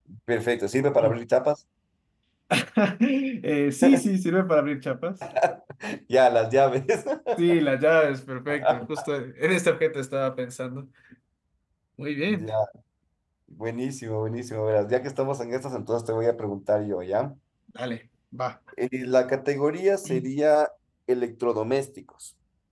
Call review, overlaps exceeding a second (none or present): none